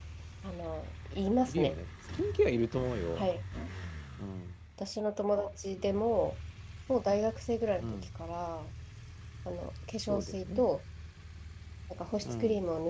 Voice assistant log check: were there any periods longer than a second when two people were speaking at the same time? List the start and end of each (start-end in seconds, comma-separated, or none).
none